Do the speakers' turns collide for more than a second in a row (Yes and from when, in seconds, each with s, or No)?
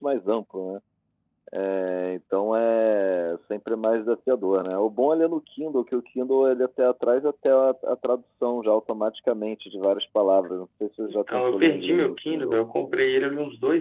Yes, from 11.1 s